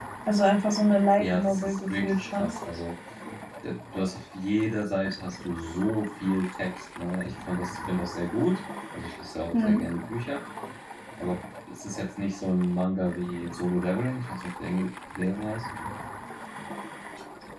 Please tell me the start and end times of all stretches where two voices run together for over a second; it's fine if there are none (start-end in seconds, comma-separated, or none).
1.2-2.5